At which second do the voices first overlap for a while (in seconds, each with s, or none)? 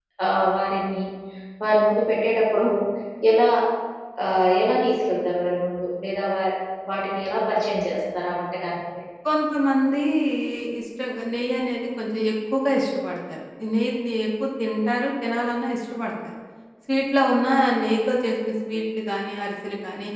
none